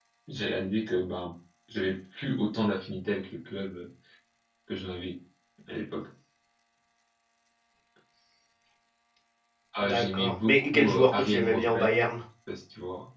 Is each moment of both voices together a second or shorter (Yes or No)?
No